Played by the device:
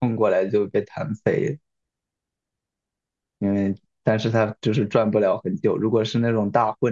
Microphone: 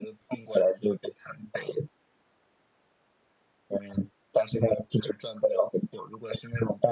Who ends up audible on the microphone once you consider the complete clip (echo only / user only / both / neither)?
echo only